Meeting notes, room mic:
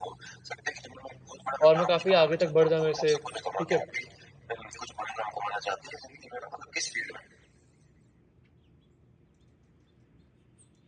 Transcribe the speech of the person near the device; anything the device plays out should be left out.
और मैं काफ़ी आगे तक बढ़ जाऊँ ऐसे, ठीक है?

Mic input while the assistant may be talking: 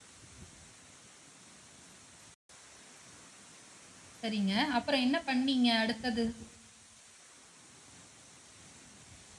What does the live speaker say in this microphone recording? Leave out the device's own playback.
சரிங்க. அப்புறம் என்ன பண்ணீங்க அடுத்தது?

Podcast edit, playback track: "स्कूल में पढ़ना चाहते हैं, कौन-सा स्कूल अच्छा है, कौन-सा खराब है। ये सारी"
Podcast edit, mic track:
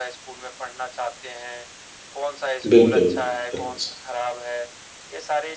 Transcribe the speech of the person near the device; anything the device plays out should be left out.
बिल्कुल, बिल्कुल।

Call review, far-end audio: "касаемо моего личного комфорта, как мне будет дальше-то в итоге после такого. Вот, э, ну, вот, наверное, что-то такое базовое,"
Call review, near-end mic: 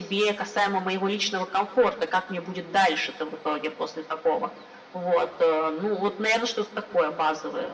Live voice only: none

